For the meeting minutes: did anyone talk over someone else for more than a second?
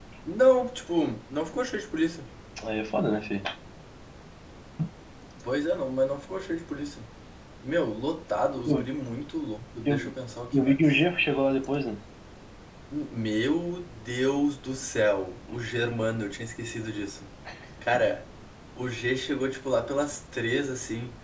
No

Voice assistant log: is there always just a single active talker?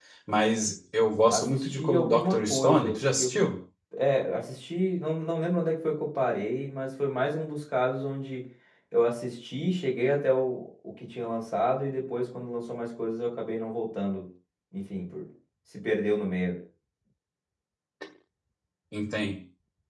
No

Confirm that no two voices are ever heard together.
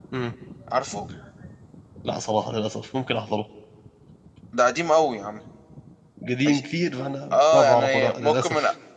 No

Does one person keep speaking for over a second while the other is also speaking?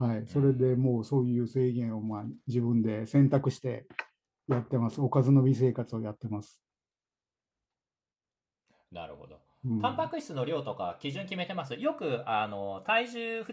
No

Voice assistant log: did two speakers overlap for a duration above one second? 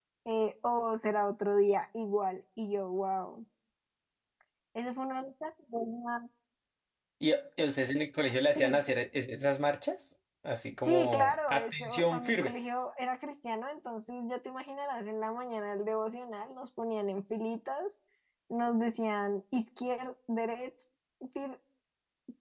Yes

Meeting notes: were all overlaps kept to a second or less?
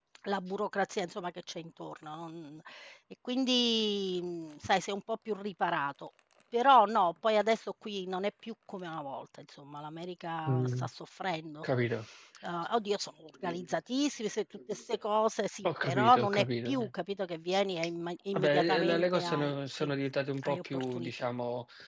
No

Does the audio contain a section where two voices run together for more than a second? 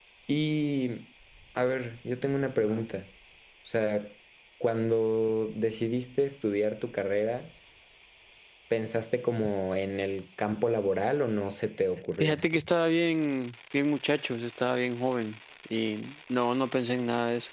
No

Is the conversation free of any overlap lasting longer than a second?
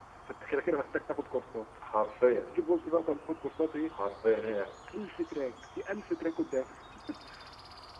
Yes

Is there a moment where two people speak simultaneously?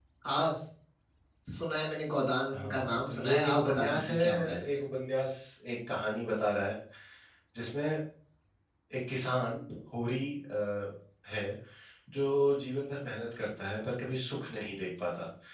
Yes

